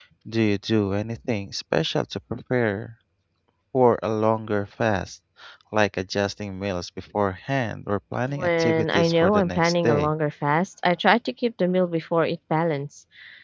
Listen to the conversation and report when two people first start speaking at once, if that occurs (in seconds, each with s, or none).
8.3 s